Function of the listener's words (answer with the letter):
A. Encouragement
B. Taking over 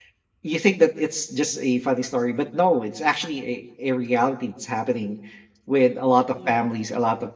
A